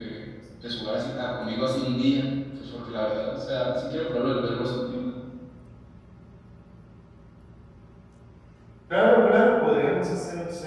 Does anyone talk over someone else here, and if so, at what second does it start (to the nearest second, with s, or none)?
none